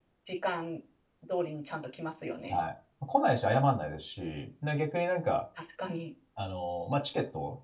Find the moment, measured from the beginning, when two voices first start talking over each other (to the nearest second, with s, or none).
none